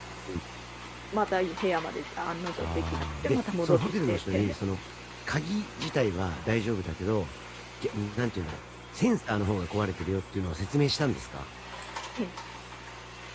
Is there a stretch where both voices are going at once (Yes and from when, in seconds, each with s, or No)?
Yes, from 2.6 s